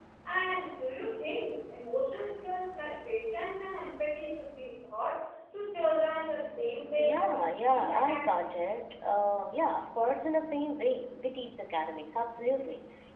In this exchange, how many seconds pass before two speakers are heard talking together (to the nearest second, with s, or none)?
7 s